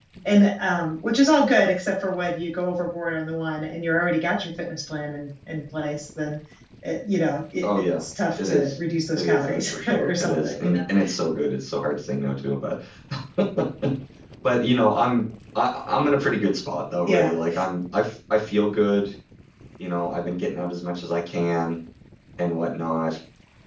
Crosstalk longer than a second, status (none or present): present